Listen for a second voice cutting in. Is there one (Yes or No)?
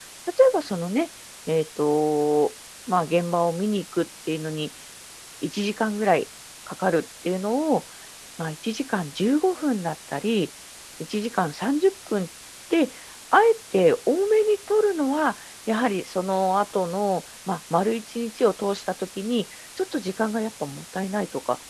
No